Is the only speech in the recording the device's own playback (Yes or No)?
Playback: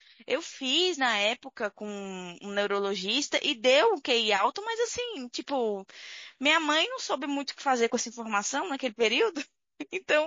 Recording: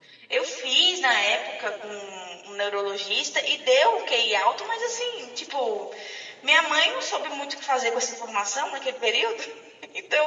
Yes